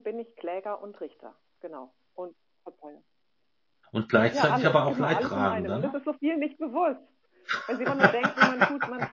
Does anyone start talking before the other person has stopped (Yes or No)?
Yes